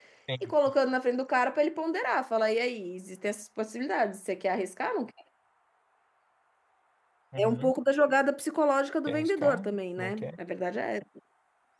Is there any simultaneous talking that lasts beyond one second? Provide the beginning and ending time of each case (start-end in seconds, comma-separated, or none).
9.1-10.3